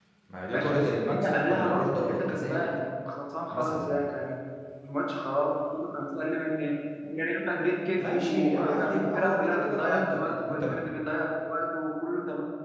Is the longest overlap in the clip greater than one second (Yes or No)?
Yes